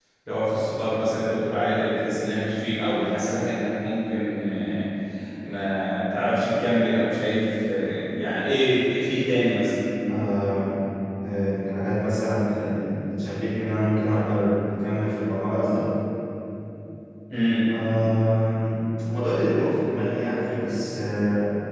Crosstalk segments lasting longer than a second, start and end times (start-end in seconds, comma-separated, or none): none